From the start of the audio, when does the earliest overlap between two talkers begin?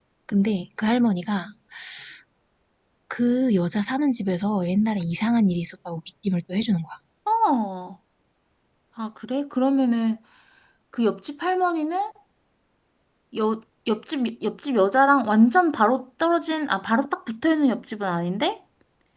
none

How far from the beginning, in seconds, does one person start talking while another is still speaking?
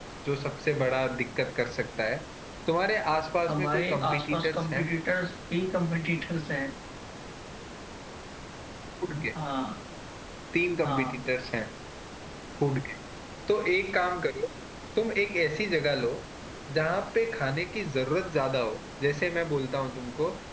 3 s

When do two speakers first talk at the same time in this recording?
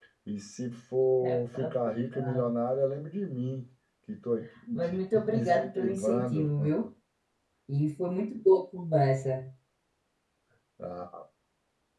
1 s

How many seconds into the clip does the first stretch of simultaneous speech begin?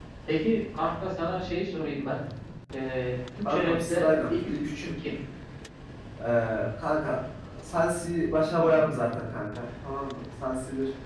3 s

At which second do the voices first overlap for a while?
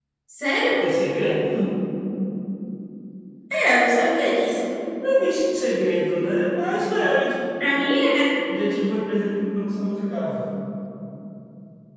none

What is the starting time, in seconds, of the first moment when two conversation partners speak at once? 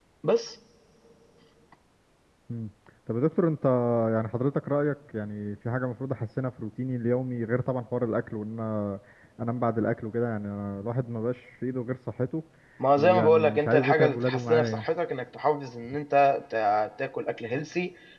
13 s

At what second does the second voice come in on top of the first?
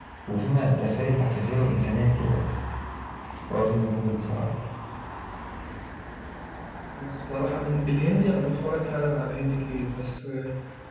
none

